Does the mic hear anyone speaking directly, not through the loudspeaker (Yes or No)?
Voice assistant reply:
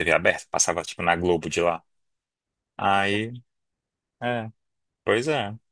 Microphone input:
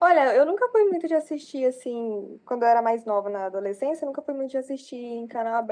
Yes